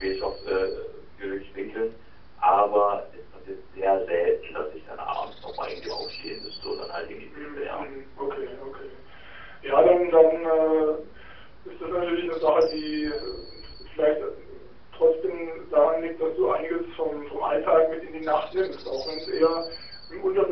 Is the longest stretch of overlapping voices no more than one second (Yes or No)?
Yes